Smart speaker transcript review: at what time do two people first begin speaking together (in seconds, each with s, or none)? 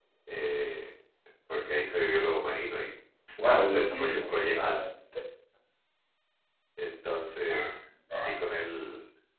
3.4 s